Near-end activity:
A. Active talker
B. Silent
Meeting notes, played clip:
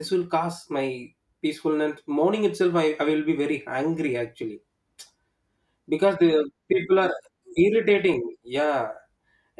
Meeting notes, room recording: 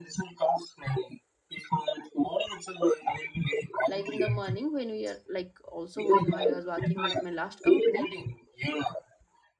A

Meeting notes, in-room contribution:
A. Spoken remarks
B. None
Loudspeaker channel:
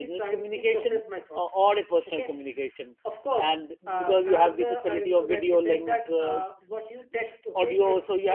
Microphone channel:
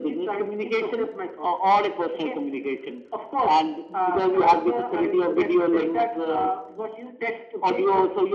B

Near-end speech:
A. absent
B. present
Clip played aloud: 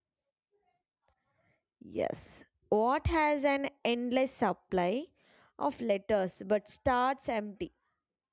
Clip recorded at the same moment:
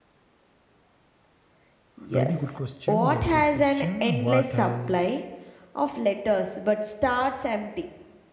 B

